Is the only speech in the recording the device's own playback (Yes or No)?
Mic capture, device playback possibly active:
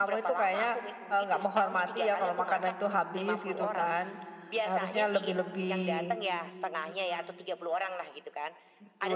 No